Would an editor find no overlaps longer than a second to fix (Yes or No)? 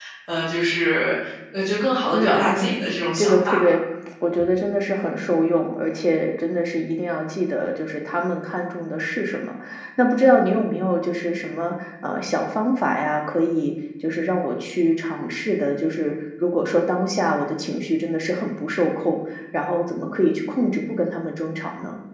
No